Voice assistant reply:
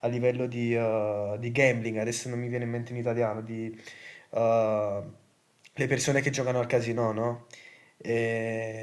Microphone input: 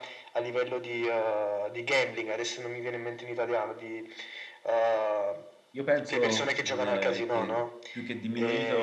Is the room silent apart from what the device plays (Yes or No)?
No